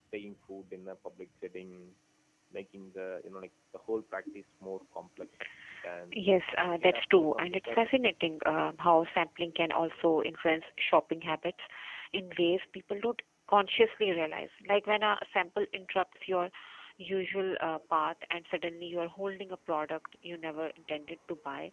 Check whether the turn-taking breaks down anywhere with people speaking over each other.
Yes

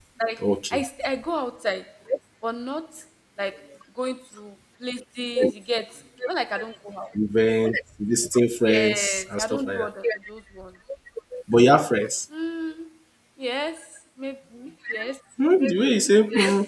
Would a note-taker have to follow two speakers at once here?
Yes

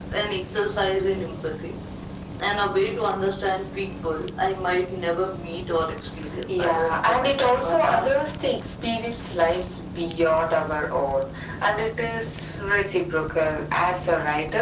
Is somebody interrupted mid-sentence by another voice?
Yes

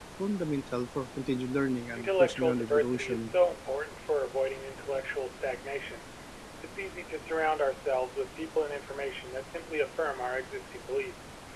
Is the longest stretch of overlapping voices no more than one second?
No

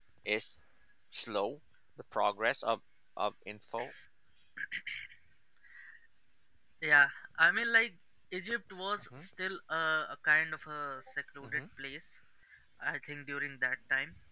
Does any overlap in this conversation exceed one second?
No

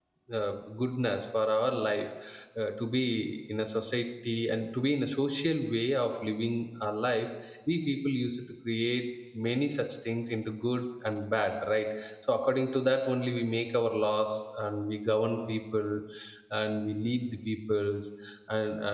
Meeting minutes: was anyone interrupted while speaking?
No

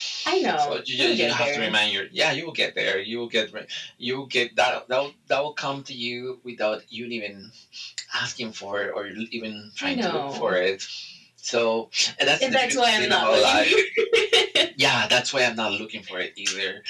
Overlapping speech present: Yes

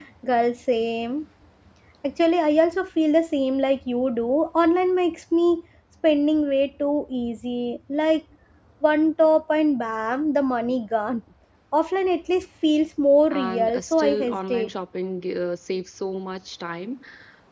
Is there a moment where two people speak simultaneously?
Yes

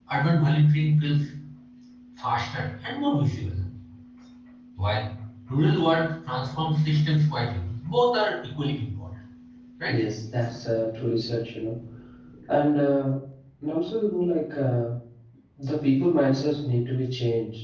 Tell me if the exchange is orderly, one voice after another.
Yes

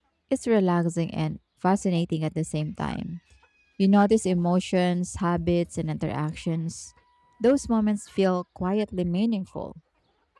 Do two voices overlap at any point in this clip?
No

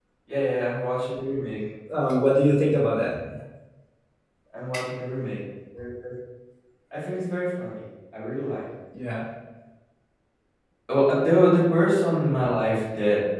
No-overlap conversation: Yes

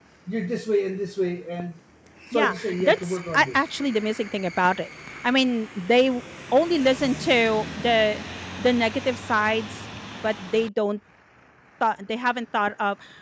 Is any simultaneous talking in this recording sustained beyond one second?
Yes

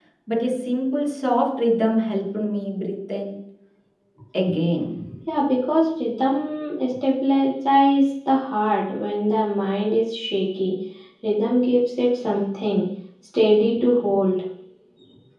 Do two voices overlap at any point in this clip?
No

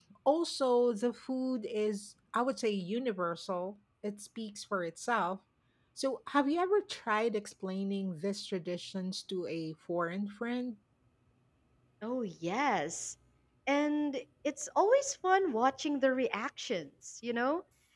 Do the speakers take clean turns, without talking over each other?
Yes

